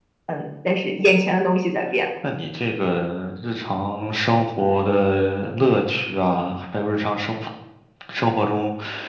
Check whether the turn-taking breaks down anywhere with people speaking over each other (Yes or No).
No